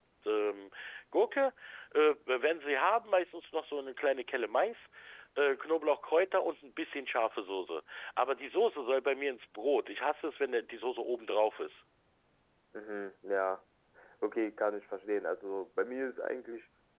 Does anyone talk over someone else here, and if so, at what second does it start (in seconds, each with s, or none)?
none